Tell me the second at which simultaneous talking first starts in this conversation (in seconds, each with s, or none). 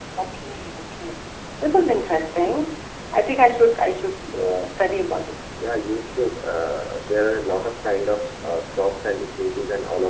none